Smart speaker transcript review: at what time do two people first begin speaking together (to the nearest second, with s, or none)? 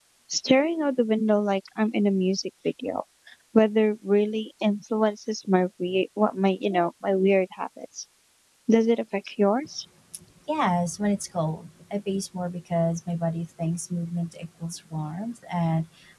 none